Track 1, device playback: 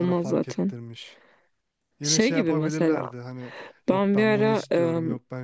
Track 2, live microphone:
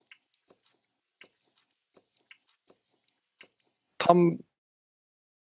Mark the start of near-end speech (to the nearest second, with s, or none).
4 s